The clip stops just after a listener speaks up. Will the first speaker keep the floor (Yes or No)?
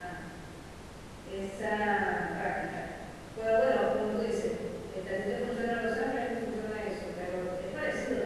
Yes